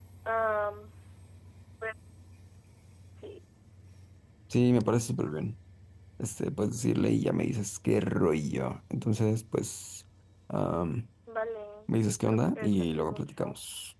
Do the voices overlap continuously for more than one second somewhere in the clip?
Yes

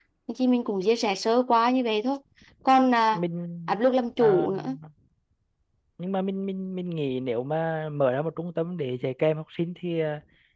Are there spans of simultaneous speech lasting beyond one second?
No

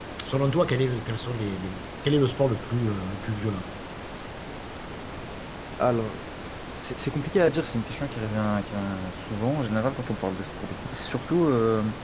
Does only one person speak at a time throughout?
Yes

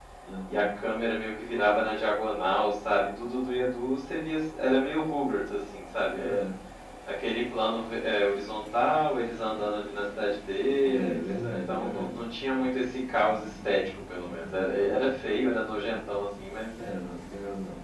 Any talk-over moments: Yes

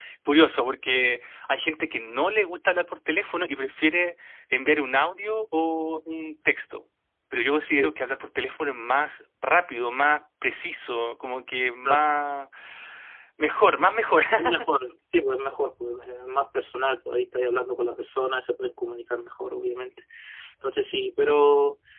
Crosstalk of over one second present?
No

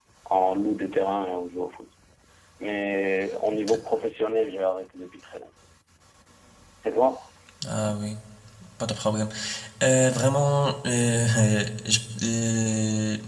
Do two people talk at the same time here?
No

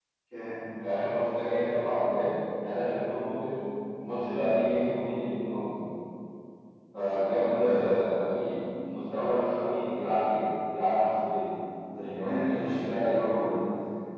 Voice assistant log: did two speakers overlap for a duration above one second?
Yes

